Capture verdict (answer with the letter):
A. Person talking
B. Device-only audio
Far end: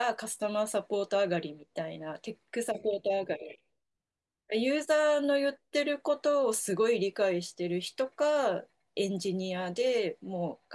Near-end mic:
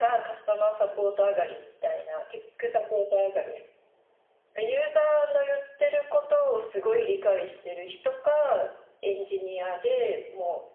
B